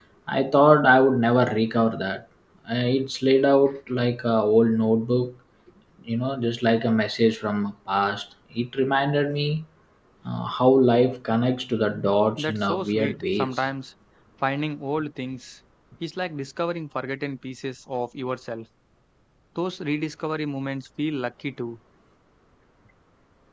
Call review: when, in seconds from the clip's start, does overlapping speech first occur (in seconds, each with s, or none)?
12.4 s